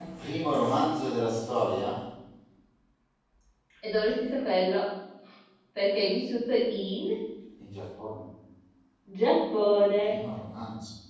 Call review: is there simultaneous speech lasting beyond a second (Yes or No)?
No